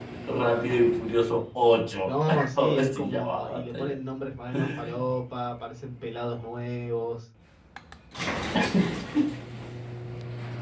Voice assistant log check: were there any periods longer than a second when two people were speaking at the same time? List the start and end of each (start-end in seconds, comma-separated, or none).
2.0-4.0